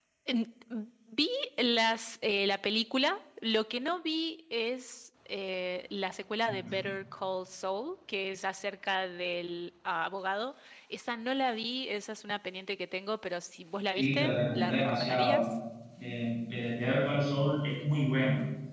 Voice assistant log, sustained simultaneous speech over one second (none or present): present